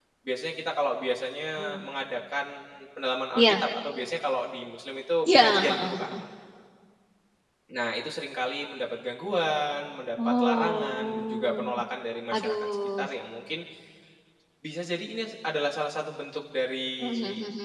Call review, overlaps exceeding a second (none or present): present